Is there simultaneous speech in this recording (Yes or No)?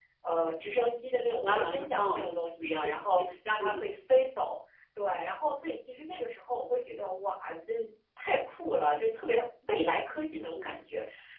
Yes